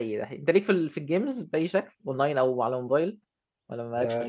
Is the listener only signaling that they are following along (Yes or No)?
No